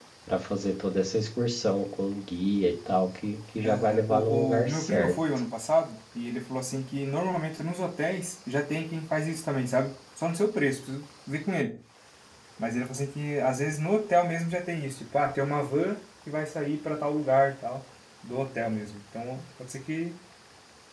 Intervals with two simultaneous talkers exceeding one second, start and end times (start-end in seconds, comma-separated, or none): 3.6-5.2